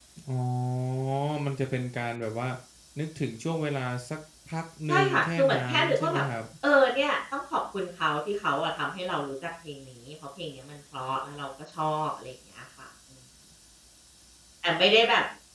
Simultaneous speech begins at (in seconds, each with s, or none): 4.9 s